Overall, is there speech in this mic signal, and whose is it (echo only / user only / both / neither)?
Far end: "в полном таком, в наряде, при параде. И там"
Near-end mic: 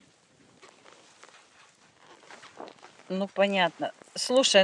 user only